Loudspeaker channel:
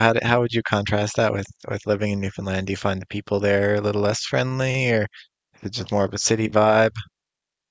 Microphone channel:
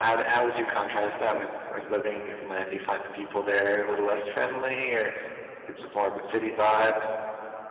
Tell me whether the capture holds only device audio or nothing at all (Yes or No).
Yes